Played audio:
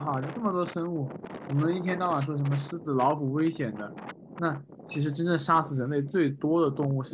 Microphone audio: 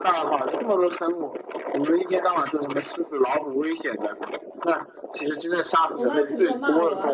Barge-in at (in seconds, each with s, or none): 5.9 s